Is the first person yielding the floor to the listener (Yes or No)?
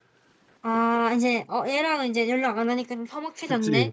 Yes